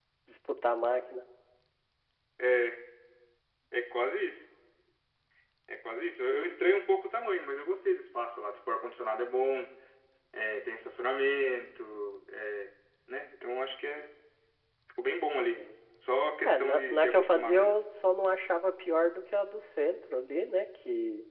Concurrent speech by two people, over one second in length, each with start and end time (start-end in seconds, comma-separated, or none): 16.4-17.8